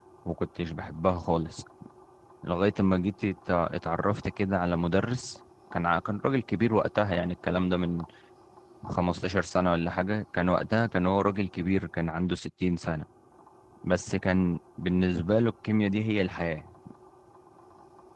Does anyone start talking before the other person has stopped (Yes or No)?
No